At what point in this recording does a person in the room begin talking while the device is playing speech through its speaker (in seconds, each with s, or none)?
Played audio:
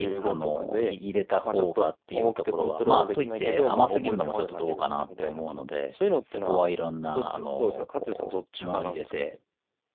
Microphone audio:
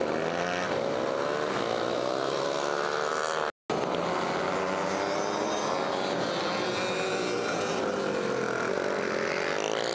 none